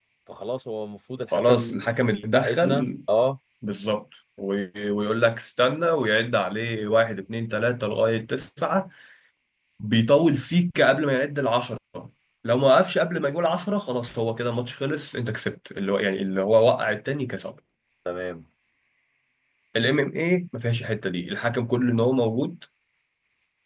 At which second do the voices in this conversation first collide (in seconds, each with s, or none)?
1.3 s